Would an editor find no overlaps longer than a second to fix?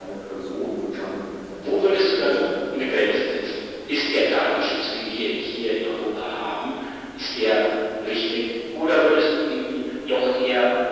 No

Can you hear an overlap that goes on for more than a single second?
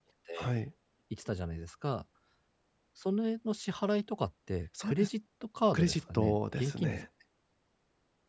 Yes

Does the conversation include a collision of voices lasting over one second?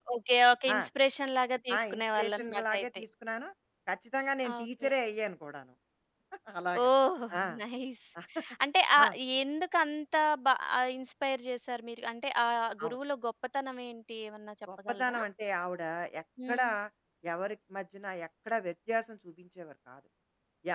Yes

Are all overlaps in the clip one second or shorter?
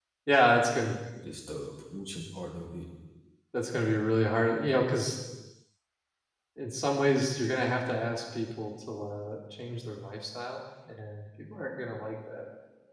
Yes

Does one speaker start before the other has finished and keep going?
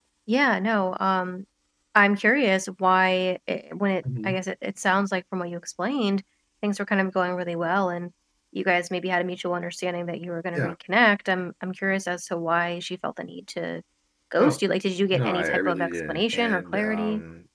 Yes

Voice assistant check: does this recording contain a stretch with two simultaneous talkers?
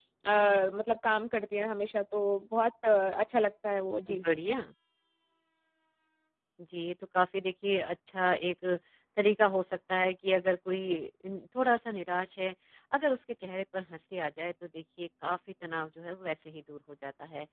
No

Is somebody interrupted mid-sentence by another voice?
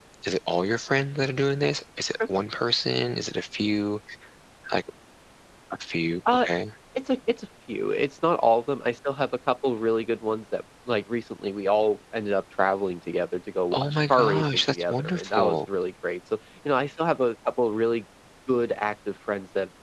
Yes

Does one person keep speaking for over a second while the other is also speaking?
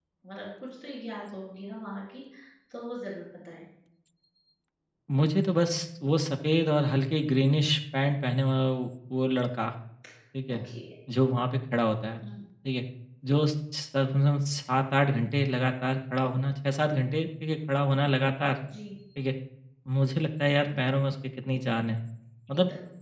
No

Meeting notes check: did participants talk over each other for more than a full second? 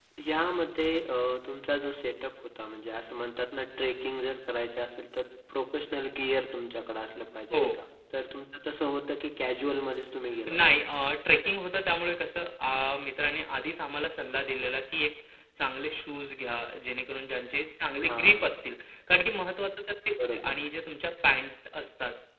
No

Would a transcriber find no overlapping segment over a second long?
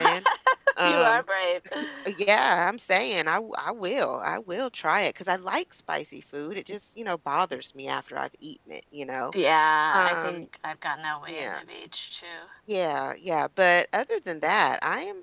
Yes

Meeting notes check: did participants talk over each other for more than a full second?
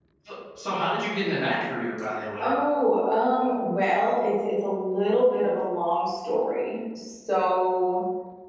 No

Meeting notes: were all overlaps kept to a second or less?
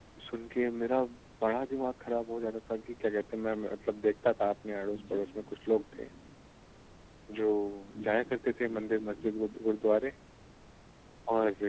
No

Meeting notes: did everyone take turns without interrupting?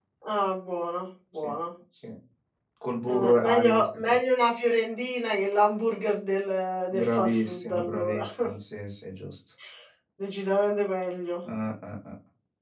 No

